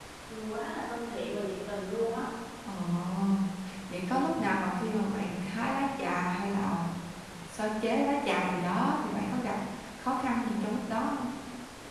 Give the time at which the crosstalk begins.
none

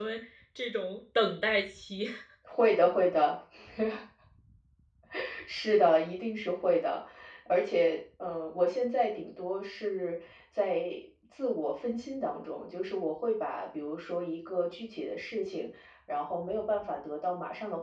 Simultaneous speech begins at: none

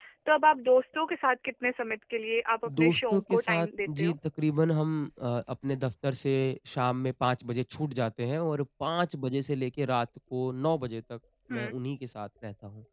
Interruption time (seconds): 2.6 s

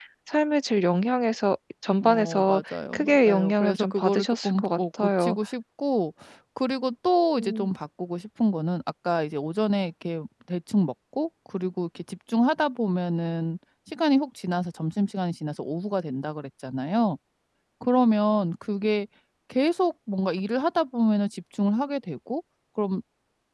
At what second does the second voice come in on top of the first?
2.0 s

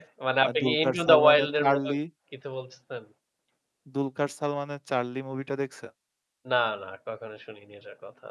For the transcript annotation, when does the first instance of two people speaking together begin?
0.6 s

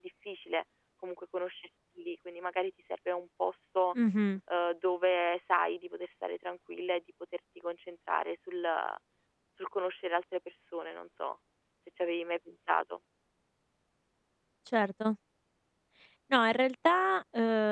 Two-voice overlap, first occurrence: none

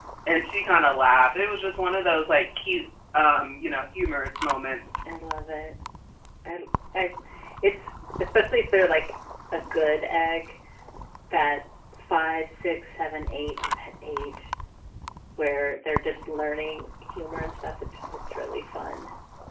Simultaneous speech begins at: none

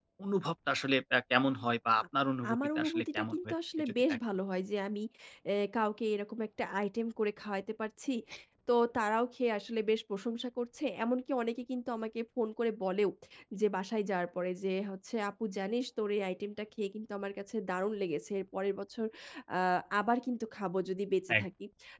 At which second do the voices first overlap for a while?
2.5 s

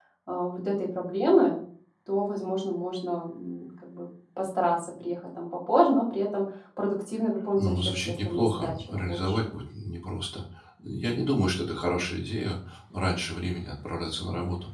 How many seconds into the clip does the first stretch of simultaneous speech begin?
7.5 s

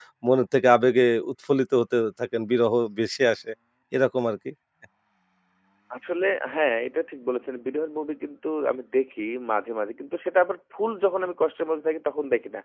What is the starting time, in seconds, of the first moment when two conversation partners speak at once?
none

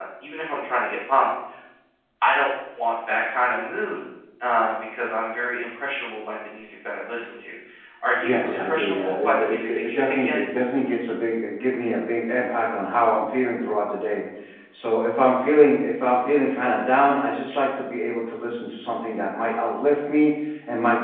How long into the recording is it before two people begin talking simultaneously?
8.2 s

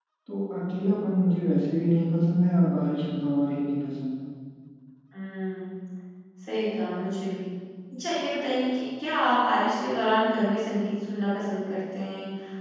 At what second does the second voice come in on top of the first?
none

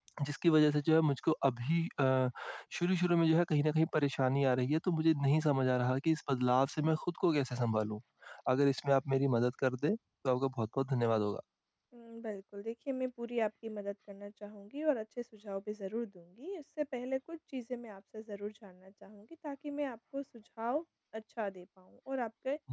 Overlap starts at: none

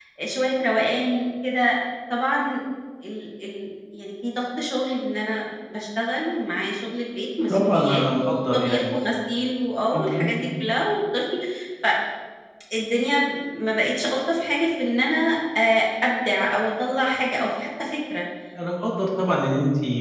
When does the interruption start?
7.5 s

